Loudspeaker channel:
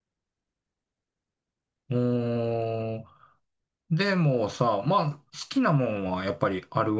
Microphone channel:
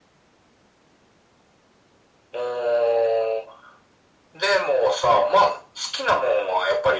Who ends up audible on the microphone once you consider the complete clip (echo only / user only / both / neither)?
echo only